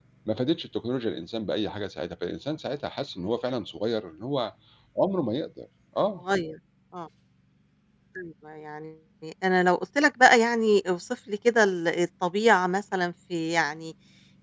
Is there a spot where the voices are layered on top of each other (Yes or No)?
No